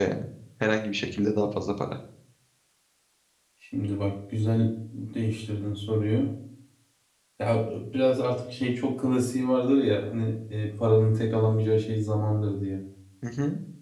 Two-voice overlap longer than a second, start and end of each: none

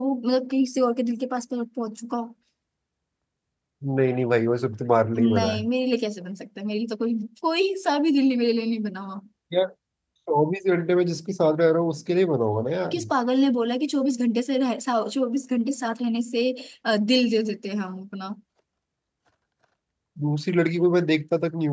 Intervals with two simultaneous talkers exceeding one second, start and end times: none

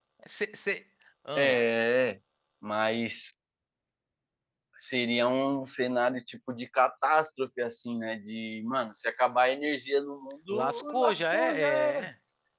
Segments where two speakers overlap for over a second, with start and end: 10.5-12.1

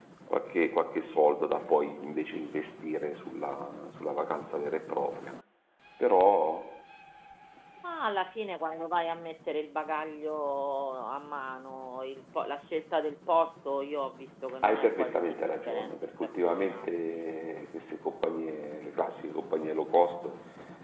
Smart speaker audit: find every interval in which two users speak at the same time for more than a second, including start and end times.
14.6-17.0

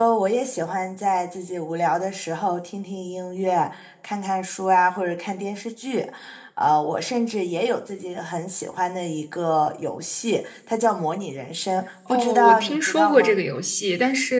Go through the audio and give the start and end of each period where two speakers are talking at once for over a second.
12.1-13.3

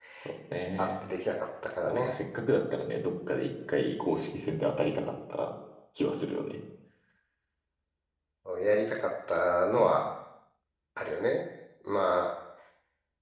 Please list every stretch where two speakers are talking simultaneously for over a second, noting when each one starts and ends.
none

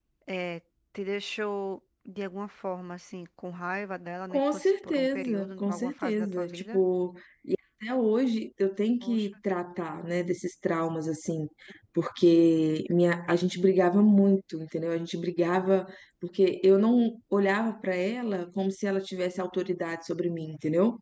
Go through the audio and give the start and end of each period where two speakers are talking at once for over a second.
4.3-6.8

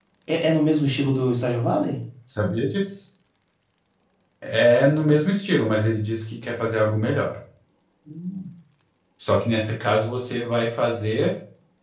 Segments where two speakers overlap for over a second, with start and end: none

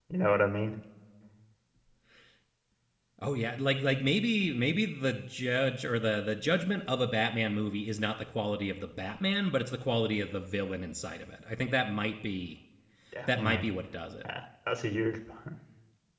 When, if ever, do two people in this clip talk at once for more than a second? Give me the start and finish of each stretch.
none

